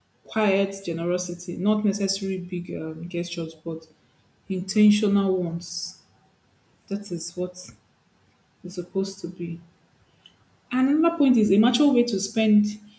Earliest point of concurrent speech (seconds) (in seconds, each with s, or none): none